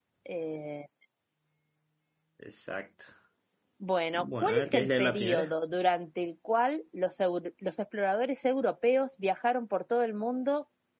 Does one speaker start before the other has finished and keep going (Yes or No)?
Yes